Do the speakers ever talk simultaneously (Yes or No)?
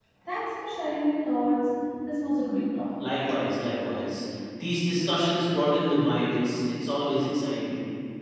No